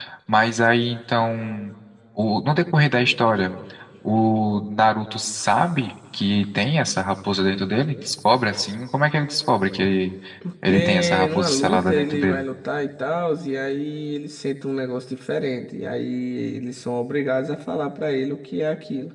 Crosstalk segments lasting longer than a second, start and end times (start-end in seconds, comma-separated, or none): 10.7-12.4